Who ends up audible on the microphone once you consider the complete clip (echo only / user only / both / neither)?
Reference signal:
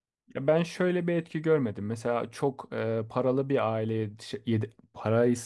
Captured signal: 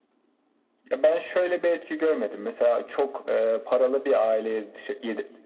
echo only